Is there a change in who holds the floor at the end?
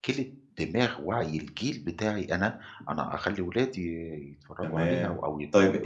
Yes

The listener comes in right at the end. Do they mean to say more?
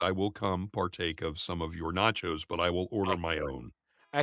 Yes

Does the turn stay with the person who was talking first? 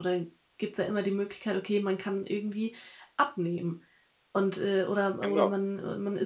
Yes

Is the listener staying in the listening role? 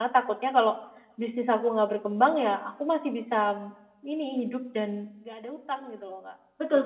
No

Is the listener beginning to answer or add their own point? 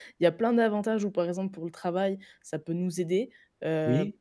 No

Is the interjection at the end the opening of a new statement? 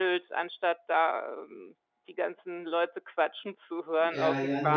Yes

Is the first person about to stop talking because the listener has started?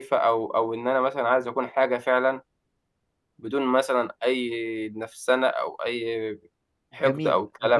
Yes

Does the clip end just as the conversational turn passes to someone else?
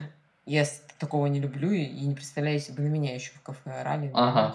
Yes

